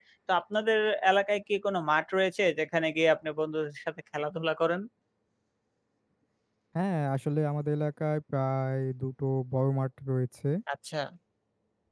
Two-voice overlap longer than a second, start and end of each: none

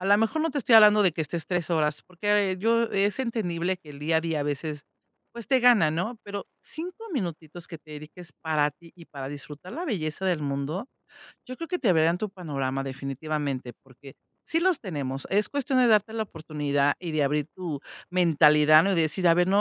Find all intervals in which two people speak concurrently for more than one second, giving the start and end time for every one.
none

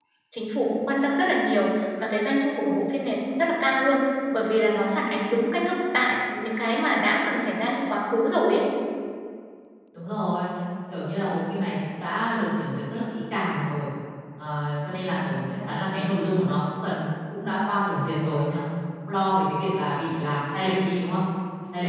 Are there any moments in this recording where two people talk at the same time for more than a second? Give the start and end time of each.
none

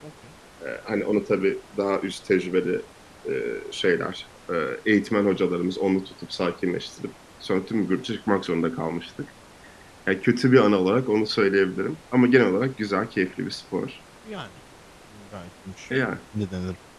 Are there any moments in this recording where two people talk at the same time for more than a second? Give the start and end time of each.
none

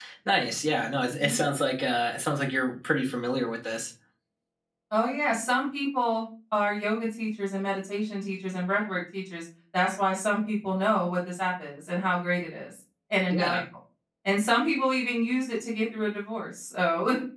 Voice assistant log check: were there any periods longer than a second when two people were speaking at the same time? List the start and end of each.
none

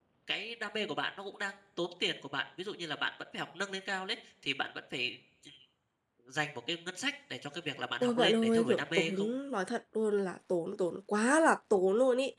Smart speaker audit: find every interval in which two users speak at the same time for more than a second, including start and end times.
8.0-9.3

